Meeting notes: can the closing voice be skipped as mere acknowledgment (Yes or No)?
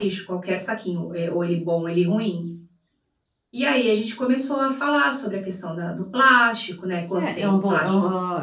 No